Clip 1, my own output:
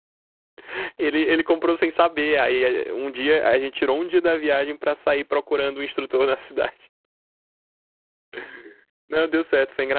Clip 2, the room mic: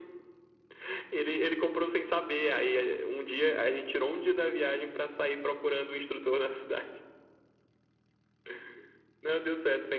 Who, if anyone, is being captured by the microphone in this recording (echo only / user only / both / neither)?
echo only